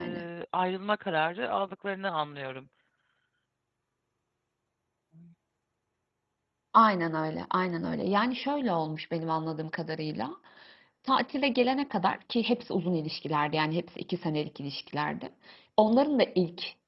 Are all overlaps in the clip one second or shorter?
Yes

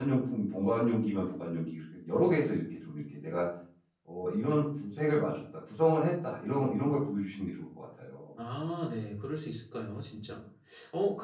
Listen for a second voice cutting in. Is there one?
No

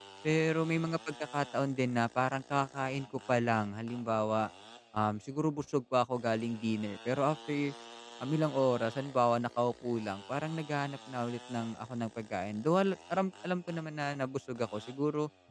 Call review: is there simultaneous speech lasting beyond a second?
No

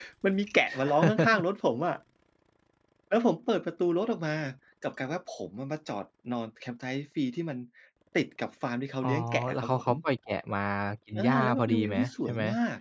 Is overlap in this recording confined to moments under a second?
No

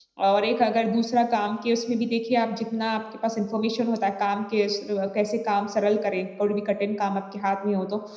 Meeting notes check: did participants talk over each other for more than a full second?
No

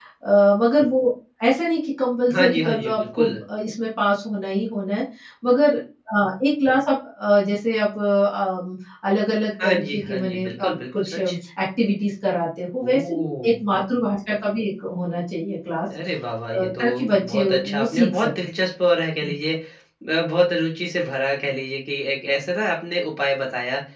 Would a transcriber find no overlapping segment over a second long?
No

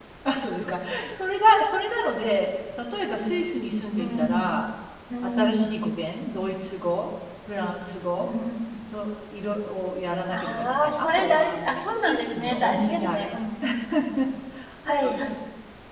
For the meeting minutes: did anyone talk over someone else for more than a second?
Yes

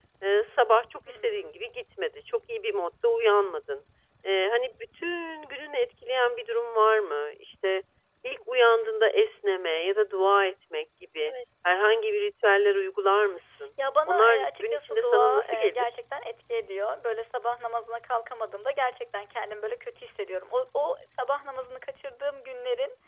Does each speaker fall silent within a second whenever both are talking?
No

